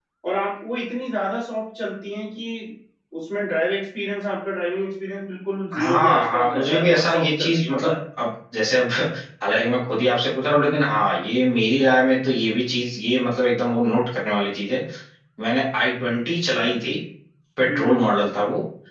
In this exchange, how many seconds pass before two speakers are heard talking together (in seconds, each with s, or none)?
5.7 s